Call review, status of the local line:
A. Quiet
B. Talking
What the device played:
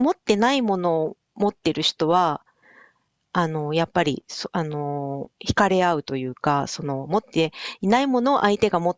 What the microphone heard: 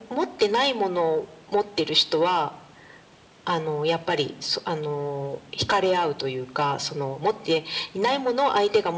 A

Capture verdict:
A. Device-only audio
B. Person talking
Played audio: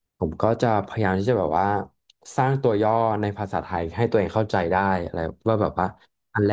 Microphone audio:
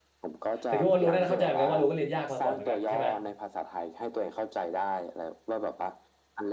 B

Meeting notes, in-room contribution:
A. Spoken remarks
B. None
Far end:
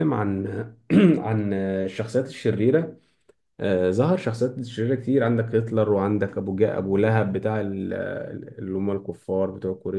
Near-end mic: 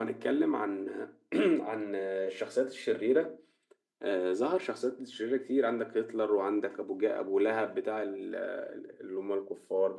B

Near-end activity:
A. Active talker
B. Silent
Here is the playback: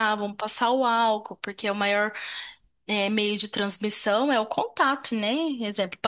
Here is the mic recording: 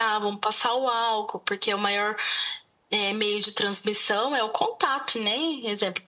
B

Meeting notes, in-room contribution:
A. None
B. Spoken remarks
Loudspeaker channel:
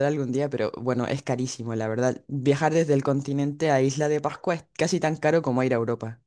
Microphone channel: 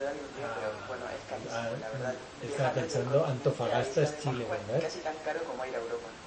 B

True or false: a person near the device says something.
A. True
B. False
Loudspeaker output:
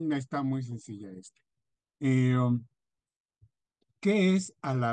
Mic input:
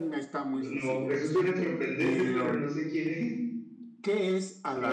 A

